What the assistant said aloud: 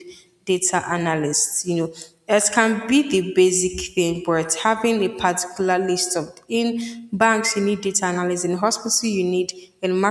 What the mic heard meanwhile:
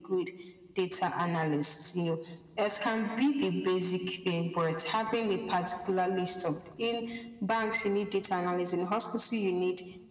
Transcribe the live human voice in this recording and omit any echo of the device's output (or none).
none